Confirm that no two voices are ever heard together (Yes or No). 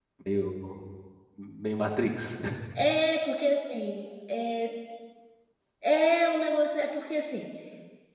Yes